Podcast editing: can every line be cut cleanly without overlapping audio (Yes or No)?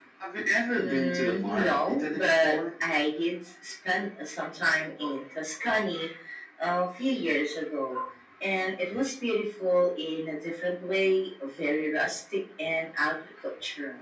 No